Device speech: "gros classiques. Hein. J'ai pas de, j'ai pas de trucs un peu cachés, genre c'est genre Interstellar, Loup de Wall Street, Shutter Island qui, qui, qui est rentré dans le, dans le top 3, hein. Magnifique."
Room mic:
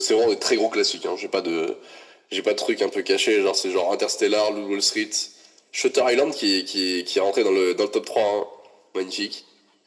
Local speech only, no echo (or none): none